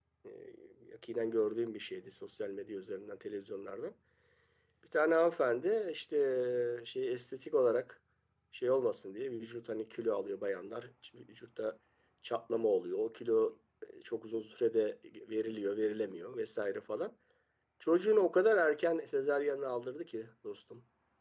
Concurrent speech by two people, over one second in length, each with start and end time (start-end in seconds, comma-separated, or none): none